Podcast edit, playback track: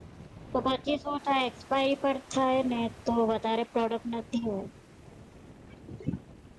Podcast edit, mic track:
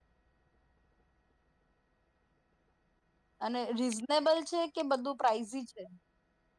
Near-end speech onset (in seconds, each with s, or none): 3.4 s